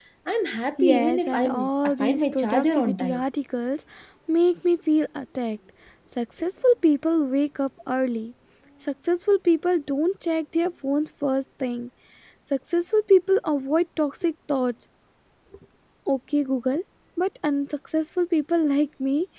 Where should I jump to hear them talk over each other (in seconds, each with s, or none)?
0.8 s